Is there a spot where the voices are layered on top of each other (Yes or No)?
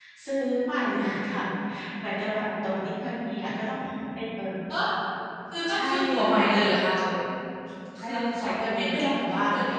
Yes